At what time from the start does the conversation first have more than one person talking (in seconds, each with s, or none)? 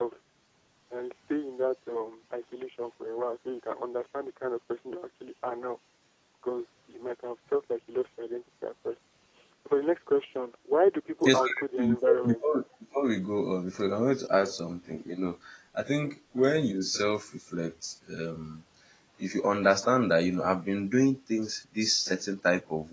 11.2 s